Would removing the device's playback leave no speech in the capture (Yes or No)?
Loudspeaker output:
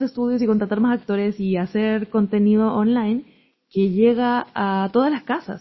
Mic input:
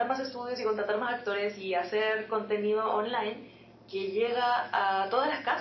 Yes